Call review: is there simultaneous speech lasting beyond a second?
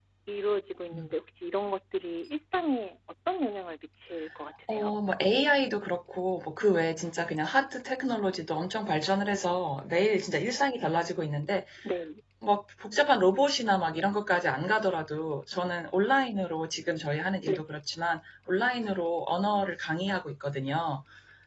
No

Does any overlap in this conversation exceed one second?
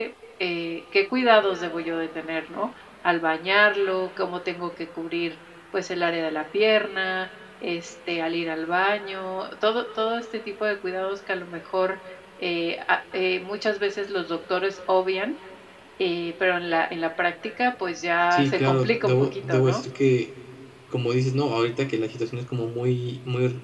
Yes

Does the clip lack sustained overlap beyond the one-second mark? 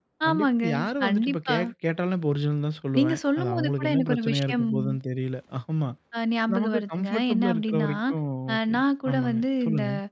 No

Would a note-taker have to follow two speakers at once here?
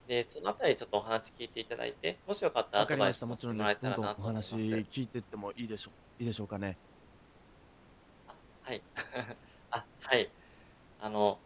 Yes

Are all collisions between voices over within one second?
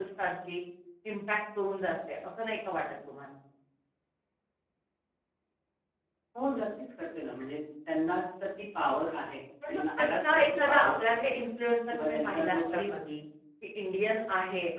No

